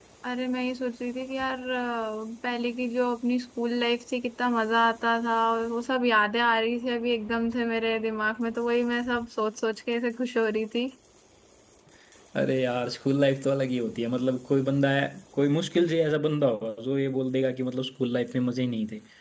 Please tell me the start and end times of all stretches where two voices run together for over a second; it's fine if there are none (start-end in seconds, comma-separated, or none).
none